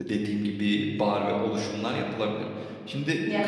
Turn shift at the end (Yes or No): Yes